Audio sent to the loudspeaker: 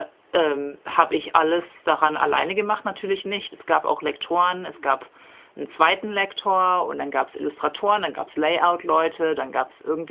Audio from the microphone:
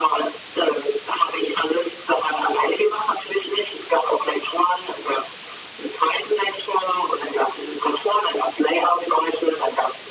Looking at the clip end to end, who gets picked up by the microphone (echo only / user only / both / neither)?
echo only